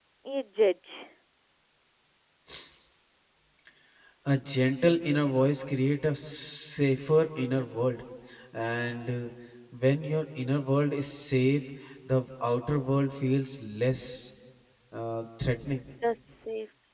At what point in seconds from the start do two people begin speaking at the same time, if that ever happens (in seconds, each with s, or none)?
none